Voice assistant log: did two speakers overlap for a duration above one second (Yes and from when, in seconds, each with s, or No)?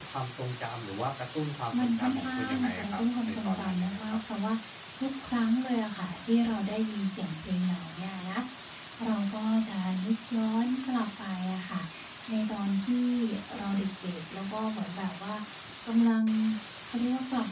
Yes, from 1.7 s